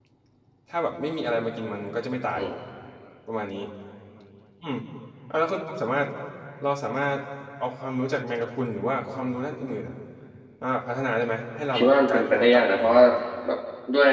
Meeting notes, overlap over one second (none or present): present